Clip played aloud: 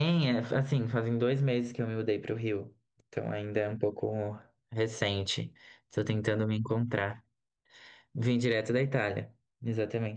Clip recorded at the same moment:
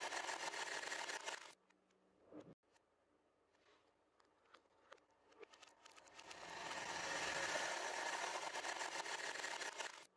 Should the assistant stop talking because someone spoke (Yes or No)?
No